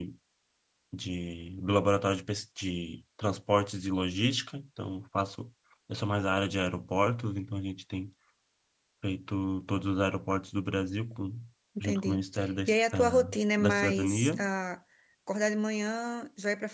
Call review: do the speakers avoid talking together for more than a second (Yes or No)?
No